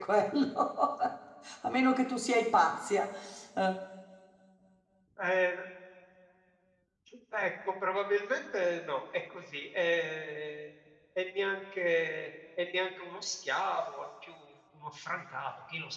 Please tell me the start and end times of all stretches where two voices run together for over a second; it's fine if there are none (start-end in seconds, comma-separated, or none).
none